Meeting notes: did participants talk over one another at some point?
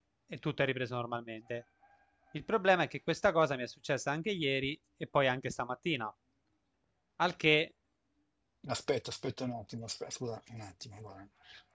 No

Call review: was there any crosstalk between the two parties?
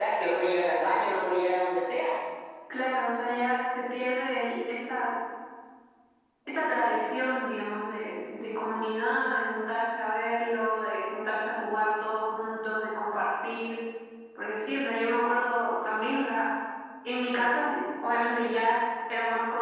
No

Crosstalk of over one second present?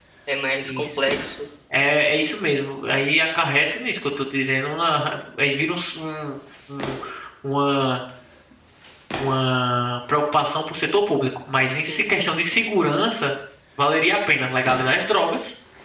No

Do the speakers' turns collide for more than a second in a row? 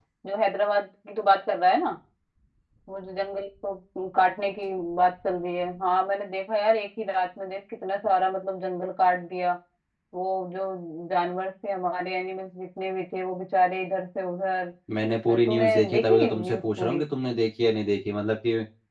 Yes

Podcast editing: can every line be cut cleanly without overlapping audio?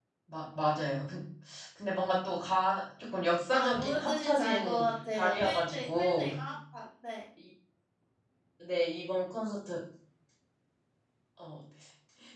No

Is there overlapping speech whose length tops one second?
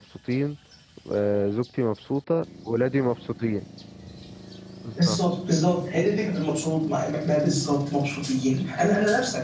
No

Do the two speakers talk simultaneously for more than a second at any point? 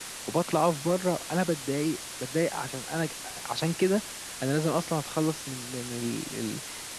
No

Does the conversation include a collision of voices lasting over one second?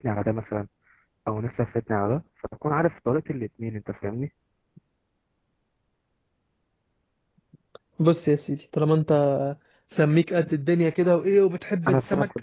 No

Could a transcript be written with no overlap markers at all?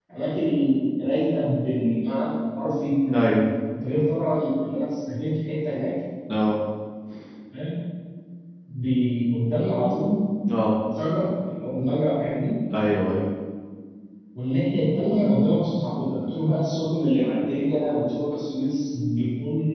Yes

